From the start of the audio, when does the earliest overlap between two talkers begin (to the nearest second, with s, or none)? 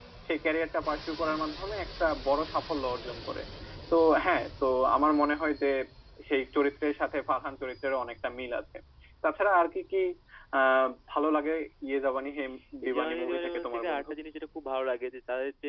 13 s